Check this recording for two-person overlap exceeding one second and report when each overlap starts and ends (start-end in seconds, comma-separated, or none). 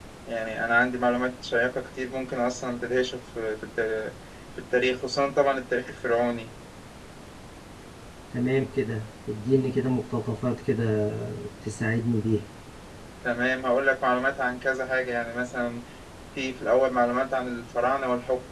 none